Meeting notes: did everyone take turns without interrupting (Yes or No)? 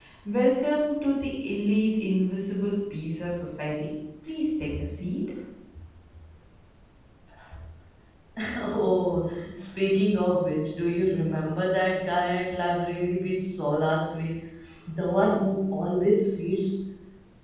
Yes